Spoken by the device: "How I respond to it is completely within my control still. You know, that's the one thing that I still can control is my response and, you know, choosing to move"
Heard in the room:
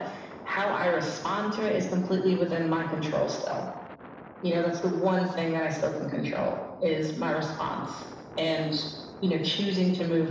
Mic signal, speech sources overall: echo only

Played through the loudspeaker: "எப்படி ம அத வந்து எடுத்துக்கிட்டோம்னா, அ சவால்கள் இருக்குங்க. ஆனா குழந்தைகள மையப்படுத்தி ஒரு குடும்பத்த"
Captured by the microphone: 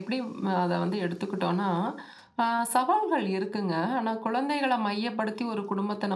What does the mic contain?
echo only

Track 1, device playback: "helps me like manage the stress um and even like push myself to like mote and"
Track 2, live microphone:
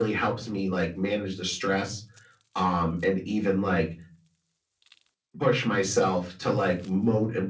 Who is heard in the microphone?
echo only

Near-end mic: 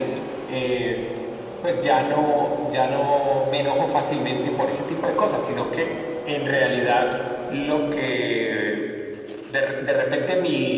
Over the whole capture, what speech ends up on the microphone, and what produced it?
echo only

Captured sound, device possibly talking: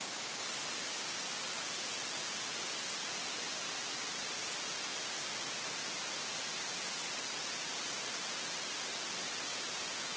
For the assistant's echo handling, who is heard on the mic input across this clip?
neither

